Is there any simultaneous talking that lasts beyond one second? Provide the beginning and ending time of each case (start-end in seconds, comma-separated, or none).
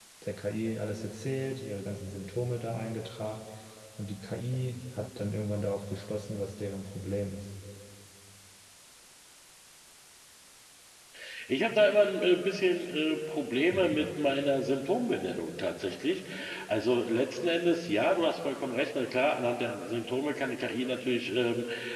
none